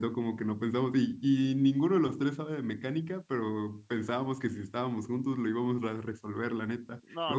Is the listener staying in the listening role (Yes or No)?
Yes